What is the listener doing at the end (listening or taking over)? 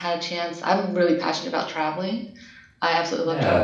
listening